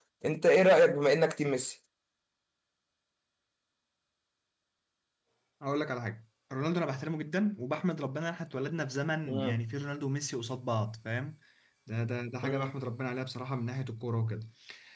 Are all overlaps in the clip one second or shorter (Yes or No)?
Yes